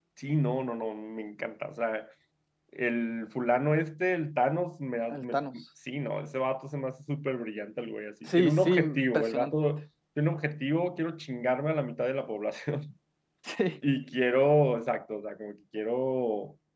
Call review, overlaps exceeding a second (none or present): present